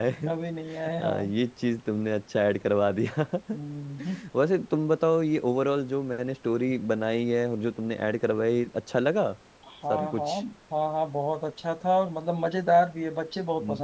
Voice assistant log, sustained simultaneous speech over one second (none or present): none